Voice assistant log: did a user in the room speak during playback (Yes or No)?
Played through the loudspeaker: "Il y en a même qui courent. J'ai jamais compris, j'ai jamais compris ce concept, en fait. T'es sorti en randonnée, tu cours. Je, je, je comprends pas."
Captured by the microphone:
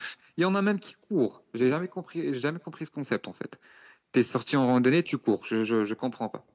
No